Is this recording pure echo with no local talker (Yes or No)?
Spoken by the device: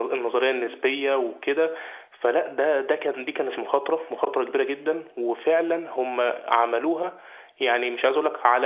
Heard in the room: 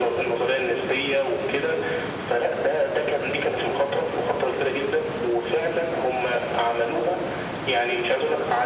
Yes